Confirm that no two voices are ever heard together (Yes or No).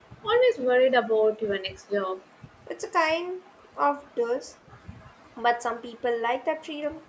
Yes